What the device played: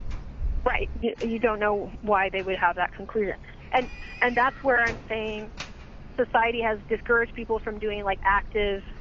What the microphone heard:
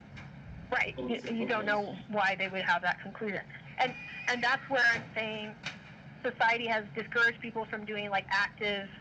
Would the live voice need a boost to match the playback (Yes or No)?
Yes